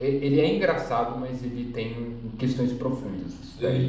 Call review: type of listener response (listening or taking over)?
taking over